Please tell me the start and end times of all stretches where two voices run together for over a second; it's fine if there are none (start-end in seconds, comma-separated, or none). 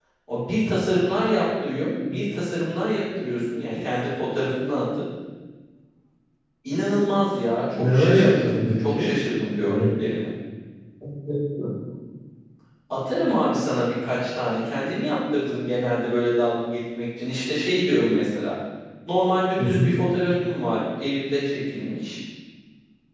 7.8-9.1